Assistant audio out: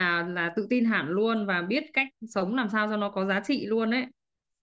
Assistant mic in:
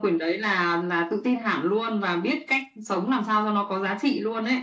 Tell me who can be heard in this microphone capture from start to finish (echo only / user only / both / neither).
echo only